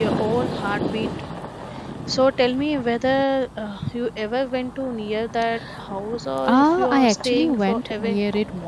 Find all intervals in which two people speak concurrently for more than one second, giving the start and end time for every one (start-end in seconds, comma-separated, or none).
6.4-8.2